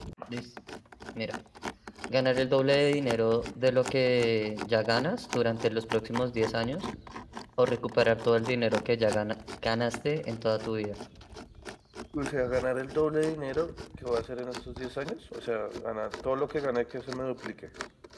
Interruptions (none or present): none